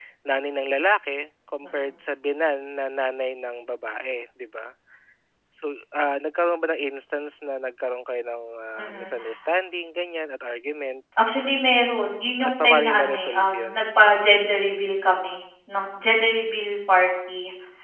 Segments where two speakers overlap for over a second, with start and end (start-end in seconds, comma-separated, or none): 12.4-13.8